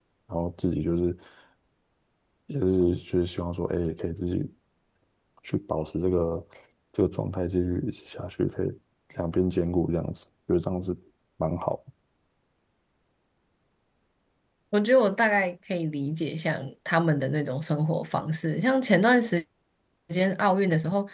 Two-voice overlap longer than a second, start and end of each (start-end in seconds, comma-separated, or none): none